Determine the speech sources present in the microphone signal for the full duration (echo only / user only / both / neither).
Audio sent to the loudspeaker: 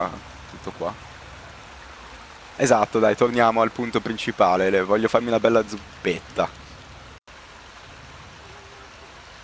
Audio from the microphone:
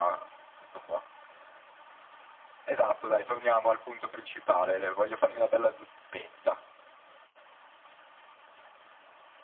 echo only